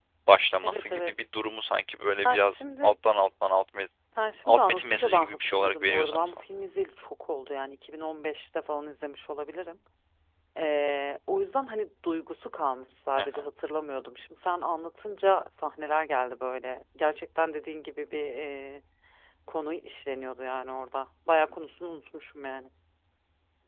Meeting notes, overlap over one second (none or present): present